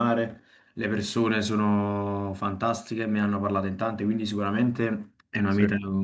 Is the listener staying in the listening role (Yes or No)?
Yes